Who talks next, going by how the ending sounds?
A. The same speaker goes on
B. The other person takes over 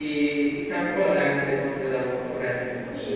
B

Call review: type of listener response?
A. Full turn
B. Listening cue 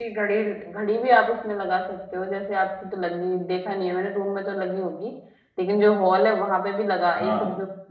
B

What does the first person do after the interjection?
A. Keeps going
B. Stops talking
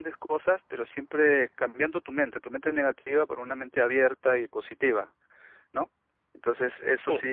A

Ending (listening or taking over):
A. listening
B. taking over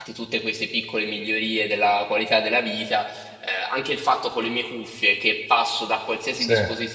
A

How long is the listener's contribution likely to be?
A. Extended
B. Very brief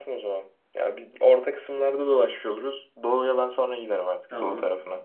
A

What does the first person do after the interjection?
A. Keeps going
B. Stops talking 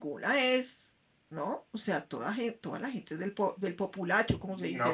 B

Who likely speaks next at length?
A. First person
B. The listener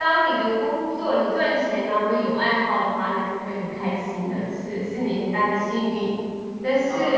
B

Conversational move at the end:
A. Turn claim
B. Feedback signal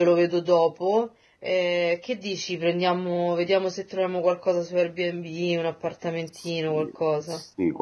A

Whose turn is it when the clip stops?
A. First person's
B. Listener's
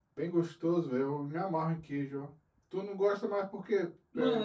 B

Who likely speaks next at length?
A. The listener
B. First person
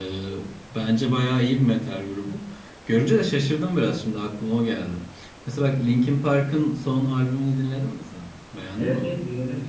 A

